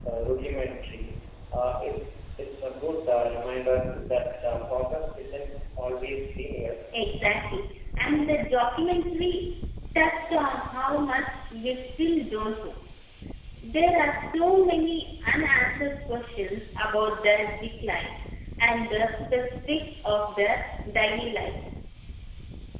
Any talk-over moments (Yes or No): No